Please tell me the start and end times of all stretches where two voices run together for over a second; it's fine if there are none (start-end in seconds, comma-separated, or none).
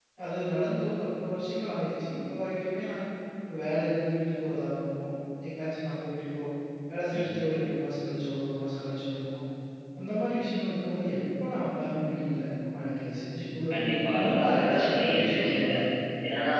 13.7-15.7